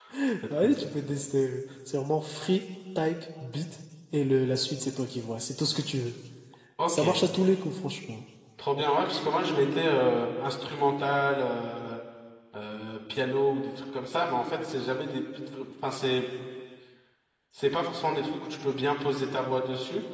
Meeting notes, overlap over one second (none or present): none